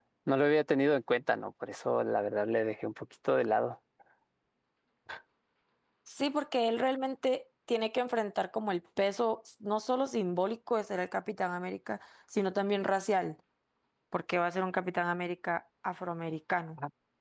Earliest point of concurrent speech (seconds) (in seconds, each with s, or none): none